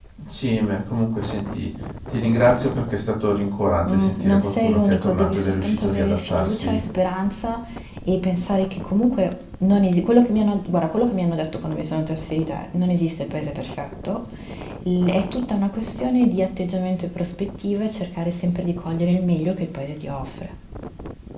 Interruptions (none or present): present